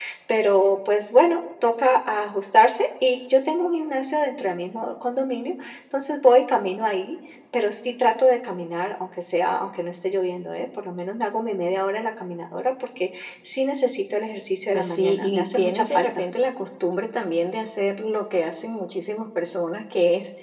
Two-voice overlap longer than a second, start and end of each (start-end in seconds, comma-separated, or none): 14.7-16.2